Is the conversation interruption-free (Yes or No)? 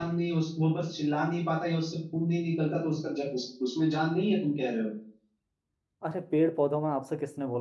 Yes